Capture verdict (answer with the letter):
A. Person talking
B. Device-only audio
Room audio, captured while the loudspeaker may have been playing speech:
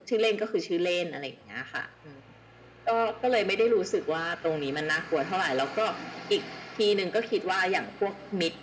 B